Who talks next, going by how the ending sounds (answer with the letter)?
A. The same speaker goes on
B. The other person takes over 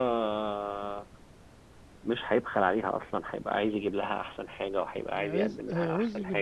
B